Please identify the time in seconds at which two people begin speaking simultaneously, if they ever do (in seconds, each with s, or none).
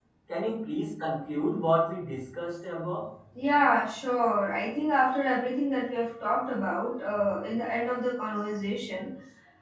none